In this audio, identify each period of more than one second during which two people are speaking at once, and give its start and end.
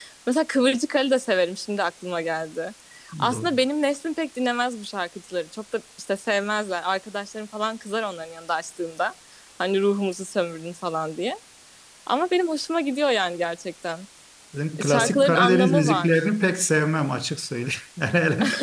14.8-16.2

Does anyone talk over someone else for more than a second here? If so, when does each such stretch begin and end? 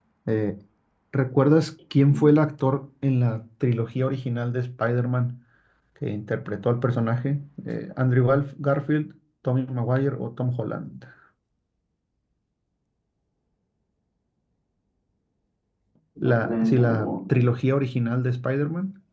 16.2-17.4

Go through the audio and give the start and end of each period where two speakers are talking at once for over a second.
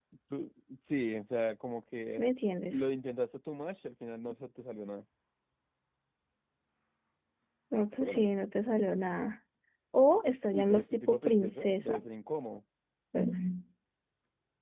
10.5-12.0

